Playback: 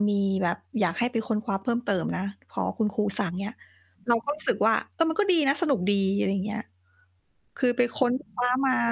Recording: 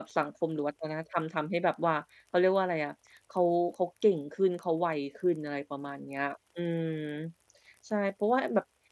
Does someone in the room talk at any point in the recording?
Yes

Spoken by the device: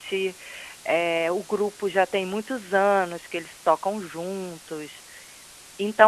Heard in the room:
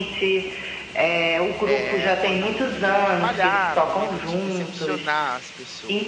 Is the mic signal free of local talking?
No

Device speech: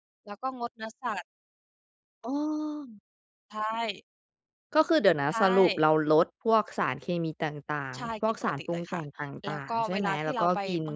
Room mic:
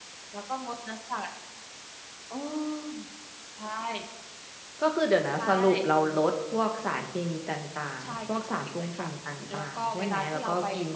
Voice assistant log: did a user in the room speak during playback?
No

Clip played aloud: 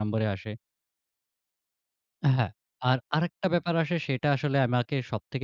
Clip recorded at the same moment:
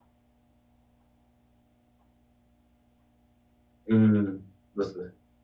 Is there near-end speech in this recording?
Yes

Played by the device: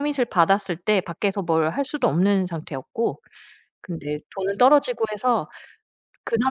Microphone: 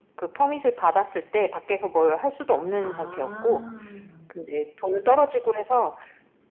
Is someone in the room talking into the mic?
Yes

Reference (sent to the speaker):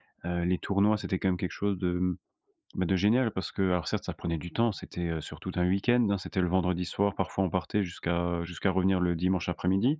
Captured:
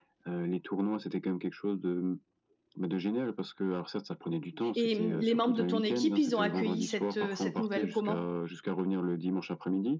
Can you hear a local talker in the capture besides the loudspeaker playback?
Yes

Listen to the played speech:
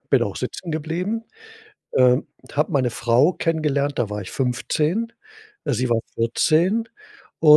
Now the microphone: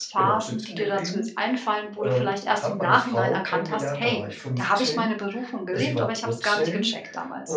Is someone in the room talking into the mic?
Yes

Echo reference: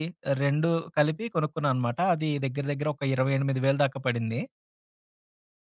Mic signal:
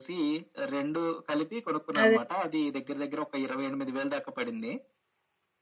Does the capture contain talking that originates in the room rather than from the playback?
Yes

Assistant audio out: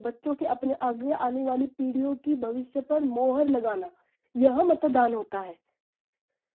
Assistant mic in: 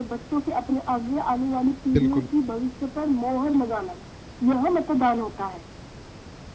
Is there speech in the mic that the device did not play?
Yes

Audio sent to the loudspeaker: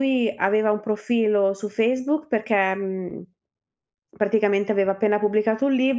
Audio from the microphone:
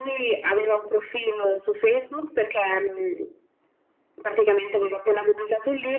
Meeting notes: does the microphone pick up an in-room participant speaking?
No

